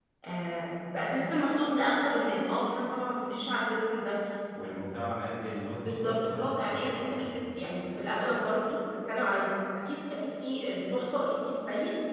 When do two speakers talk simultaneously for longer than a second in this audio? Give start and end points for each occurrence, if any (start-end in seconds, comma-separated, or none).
5.8-7.3